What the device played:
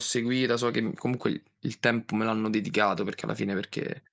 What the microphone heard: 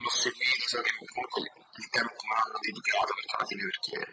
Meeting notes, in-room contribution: none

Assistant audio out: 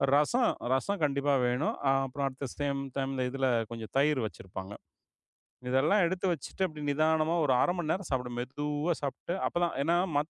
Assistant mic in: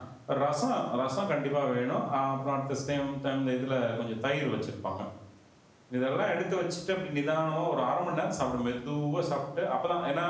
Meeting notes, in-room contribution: none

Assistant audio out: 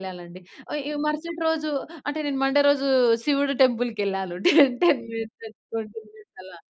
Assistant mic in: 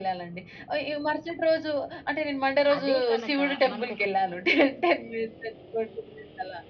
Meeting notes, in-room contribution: present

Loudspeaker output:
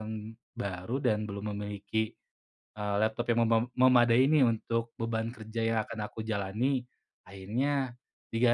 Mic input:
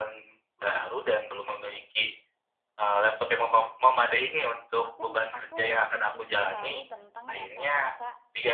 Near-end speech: present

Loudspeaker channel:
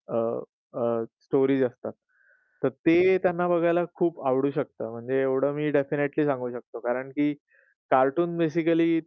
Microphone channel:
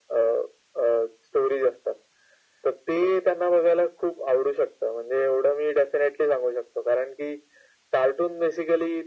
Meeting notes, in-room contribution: none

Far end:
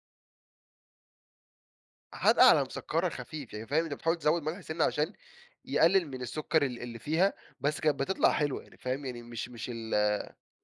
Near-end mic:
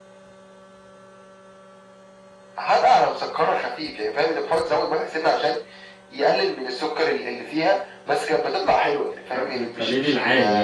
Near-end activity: present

